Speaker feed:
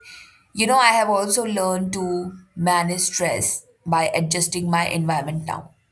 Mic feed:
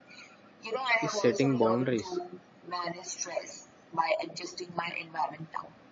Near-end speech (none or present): present